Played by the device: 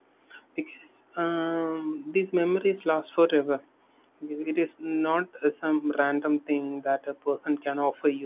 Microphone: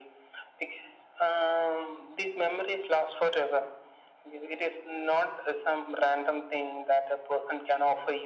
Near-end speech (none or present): none